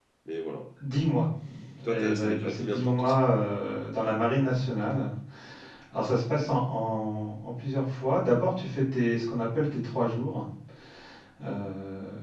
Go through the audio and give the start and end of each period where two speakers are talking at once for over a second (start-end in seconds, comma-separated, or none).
1.8-3.2